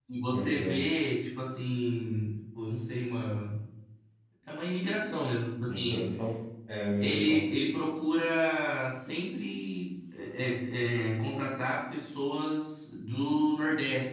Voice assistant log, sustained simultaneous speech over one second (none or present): none